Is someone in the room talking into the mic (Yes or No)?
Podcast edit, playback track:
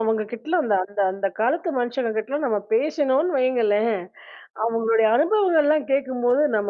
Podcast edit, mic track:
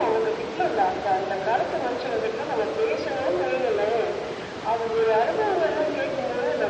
No